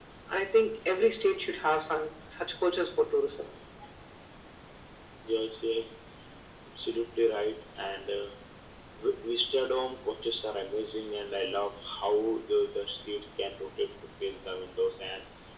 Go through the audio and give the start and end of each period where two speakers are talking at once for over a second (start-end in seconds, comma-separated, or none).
none